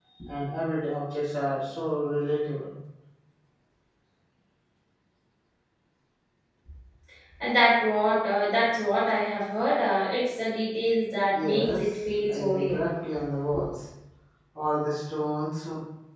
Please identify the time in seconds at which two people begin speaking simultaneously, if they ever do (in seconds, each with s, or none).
11.3 s